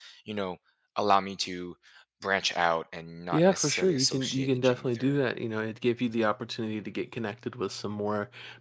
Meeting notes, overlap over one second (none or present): present